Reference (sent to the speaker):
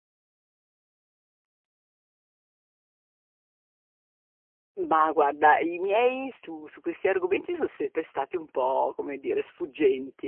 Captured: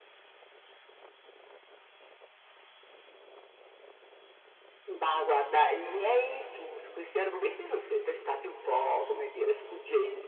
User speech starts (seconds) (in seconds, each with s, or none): 8.7 s